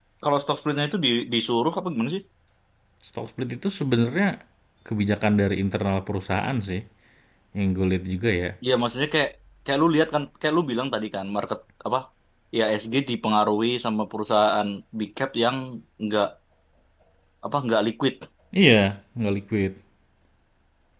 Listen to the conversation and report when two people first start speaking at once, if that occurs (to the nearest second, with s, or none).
none